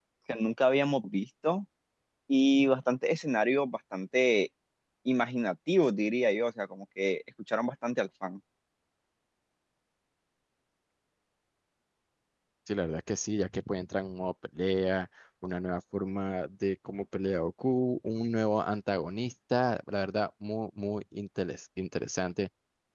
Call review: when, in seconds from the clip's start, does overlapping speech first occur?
none

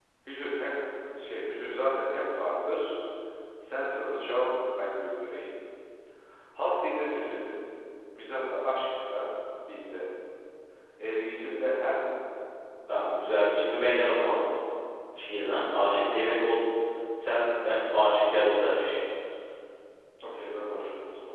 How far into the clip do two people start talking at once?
none

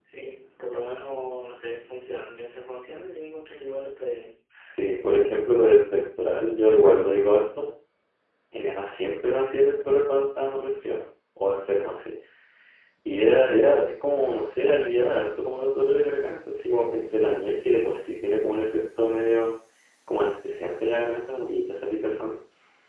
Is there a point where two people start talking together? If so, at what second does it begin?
none

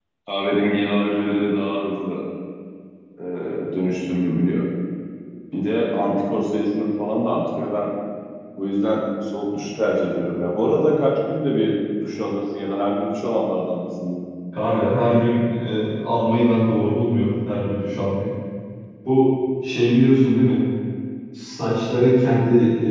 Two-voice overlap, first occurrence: none

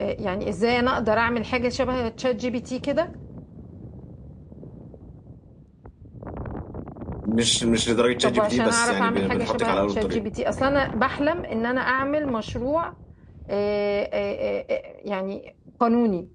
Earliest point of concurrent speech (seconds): 8.2 s

